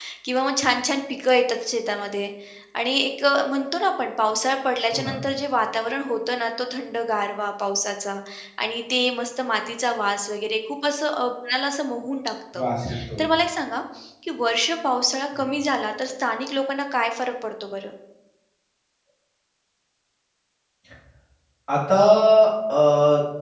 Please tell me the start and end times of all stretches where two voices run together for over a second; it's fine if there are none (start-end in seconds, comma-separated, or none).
none